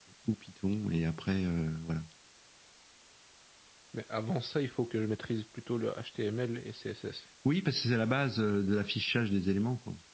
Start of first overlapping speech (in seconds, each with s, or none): none